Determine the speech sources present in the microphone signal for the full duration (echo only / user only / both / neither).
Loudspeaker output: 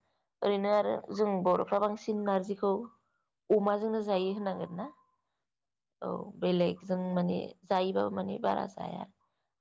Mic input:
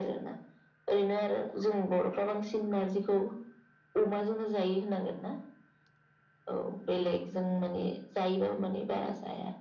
echo only